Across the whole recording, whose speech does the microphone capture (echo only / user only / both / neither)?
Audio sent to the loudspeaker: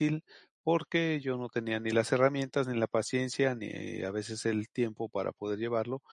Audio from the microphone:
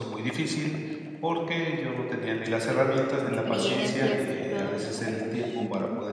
both